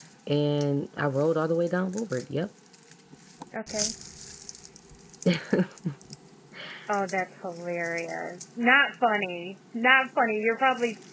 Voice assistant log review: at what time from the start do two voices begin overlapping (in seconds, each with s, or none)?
none